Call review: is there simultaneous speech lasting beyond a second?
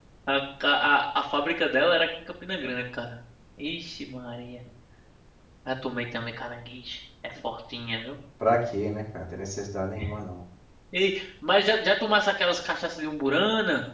No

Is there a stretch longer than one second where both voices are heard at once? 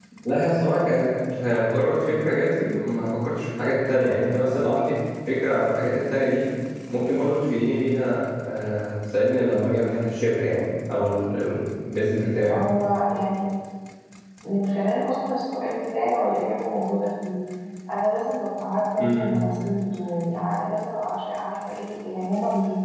No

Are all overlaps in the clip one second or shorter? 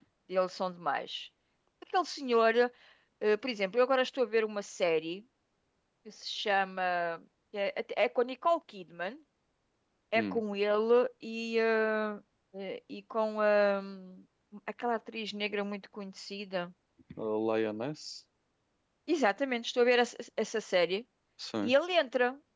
Yes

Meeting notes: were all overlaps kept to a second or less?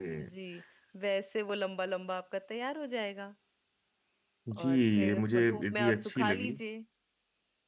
No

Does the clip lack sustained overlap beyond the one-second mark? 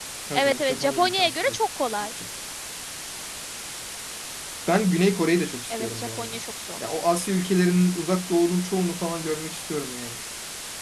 No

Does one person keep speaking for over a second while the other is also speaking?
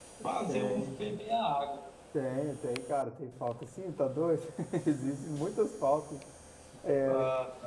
No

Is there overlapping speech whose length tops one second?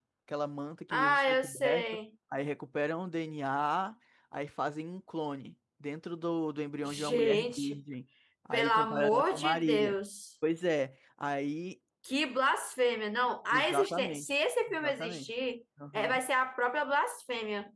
Yes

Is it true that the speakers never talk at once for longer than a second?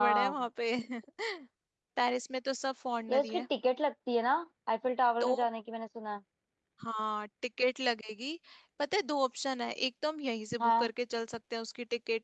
Yes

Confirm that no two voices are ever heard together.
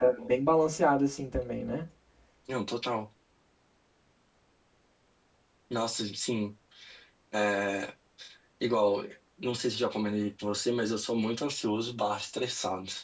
Yes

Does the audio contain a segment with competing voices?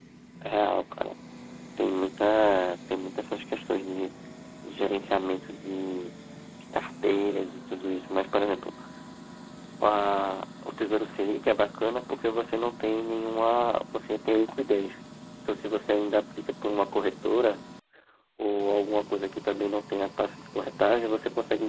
No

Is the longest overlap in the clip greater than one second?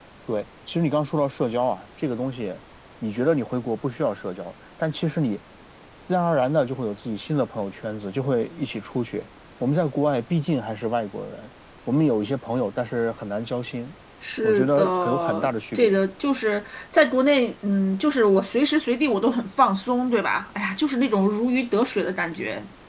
Yes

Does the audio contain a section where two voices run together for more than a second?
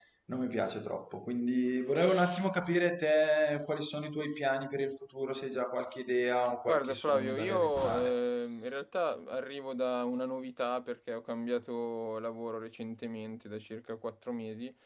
Yes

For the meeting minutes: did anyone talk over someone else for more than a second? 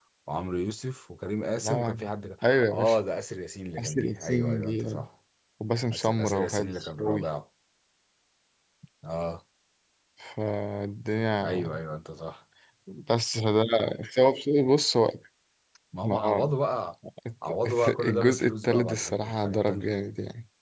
Yes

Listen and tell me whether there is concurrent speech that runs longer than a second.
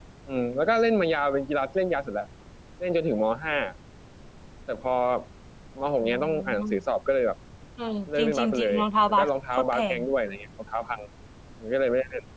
Yes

